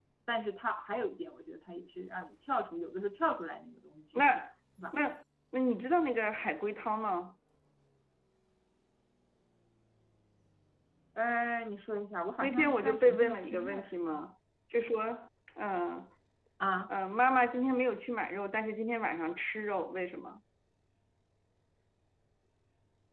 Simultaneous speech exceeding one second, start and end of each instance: 12.4-14.2

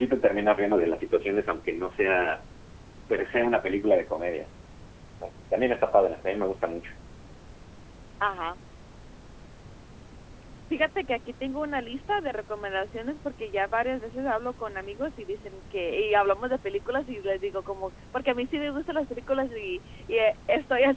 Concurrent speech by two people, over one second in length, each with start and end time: none

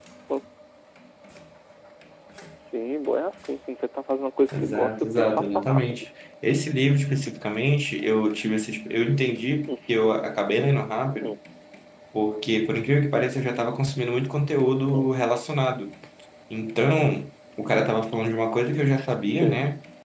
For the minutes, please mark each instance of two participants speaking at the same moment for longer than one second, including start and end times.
4.6-6.1

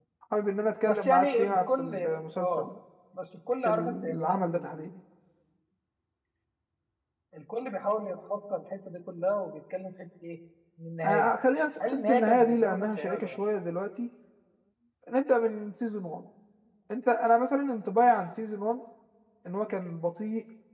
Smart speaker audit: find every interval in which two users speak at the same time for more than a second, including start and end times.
0.9-2.7, 3.6-4.9, 11.8-13.4

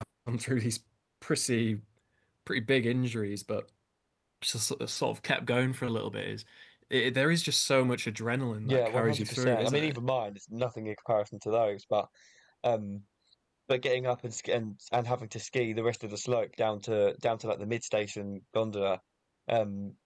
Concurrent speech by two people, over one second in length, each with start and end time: 8.6-10.0

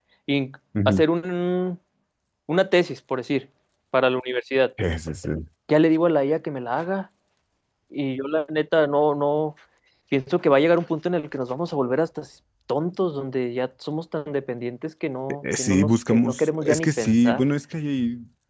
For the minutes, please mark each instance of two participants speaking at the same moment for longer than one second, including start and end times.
15.6-17.4

